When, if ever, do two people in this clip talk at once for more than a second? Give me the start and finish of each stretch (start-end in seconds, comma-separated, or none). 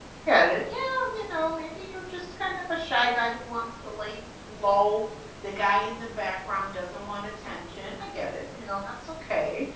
none